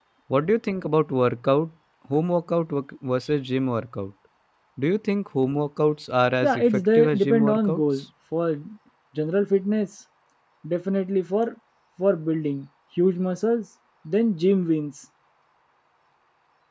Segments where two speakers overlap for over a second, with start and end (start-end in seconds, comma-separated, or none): 6.4-7.8